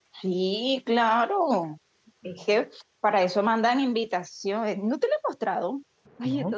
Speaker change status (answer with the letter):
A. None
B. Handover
A